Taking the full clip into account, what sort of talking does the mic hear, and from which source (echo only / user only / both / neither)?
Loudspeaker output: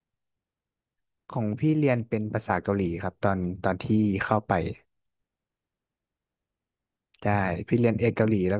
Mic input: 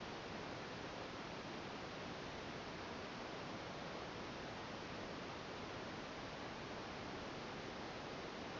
neither